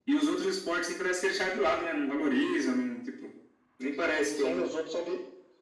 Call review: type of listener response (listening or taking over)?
taking over